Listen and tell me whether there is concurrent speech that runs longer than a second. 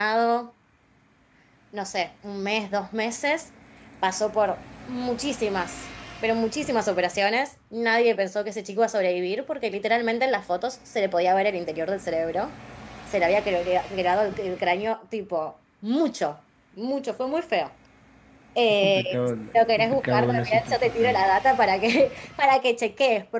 Yes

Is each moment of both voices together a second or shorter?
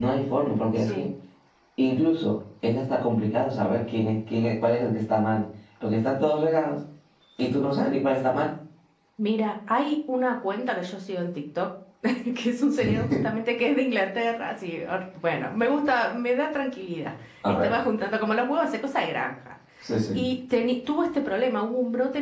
Yes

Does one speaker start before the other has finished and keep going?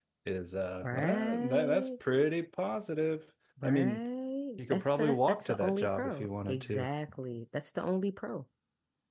Yes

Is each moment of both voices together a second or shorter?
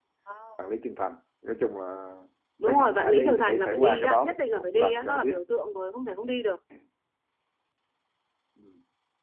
No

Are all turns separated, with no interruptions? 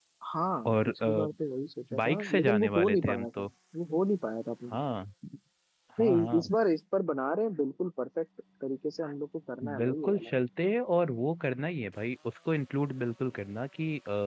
No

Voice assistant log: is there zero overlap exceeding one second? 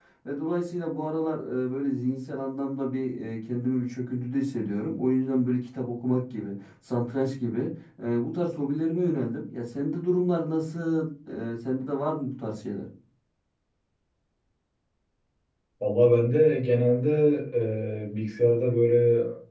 Yes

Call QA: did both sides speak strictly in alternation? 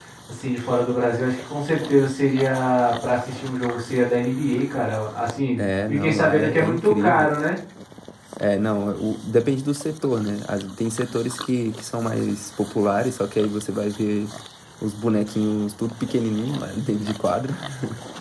No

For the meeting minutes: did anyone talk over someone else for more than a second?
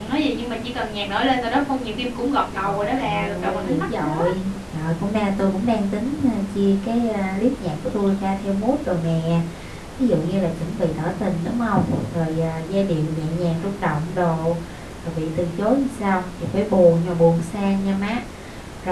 Yes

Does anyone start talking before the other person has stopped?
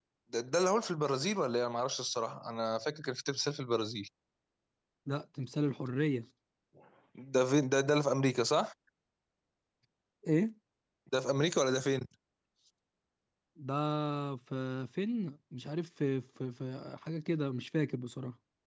No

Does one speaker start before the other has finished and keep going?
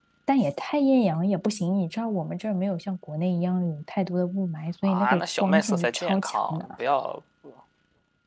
Yes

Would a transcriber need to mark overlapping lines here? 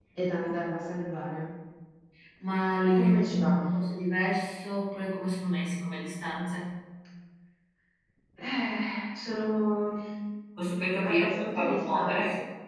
Yes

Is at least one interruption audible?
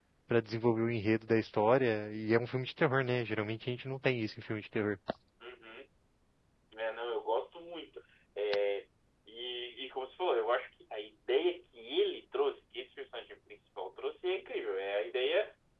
No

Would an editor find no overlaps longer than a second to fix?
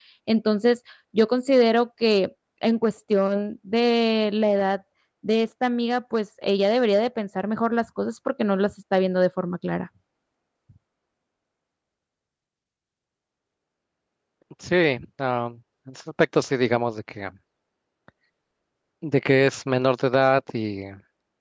Yes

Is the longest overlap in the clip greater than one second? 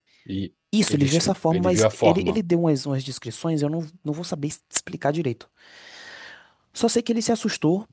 Yes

